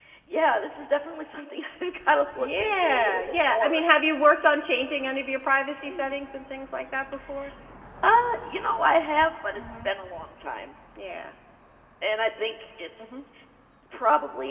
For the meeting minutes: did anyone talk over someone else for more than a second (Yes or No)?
Yes